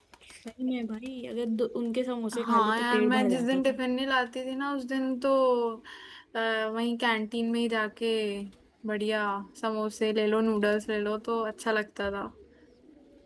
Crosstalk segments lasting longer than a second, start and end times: 2.4-3.8

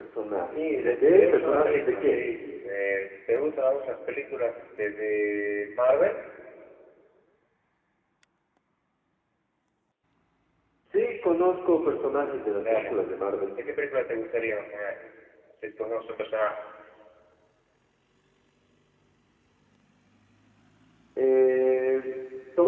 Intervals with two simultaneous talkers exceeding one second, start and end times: 0.6-2.2

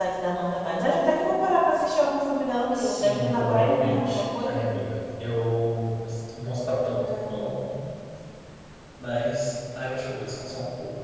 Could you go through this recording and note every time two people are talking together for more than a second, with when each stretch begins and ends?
2.7-4.6

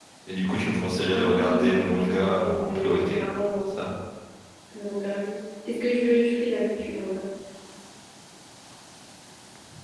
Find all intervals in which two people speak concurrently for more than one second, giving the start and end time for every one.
1.1-3.2

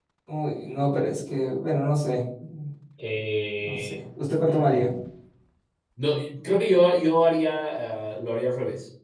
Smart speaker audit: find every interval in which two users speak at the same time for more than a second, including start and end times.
none

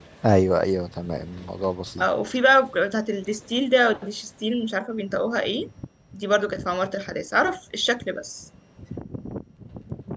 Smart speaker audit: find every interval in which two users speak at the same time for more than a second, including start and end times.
none

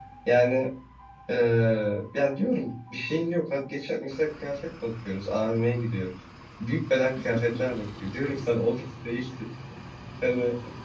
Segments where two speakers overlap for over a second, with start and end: none

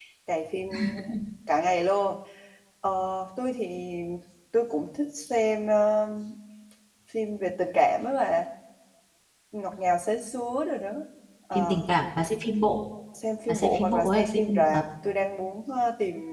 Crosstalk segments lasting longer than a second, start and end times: 13.5-14.8

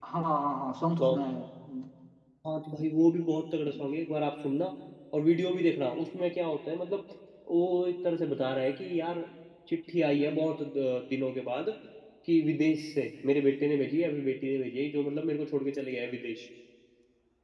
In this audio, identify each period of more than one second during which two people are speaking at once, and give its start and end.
none

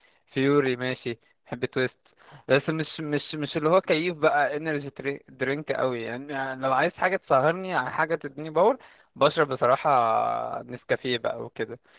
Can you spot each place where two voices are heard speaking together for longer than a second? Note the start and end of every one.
none

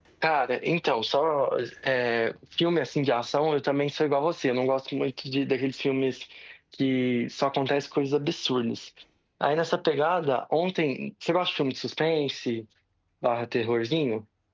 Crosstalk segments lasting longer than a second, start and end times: none

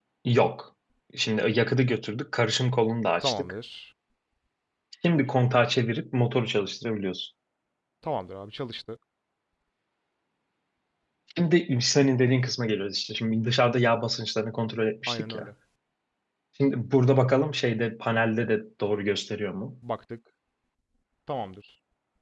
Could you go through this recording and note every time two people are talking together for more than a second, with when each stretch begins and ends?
none

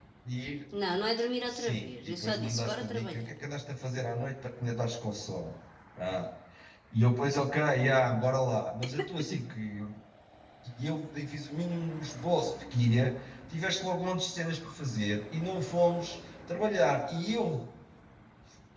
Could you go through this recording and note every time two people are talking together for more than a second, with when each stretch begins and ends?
1.5-3.3

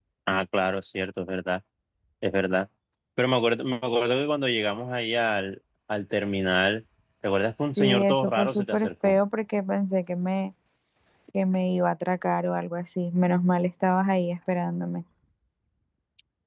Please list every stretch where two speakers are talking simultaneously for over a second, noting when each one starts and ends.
7.6-9.2

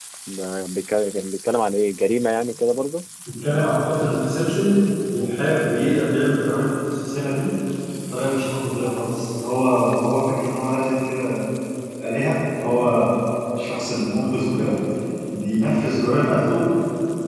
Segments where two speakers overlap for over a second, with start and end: none

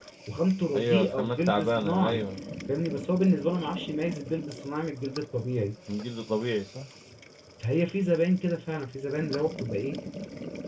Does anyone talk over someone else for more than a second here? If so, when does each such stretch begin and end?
0.8-2.2

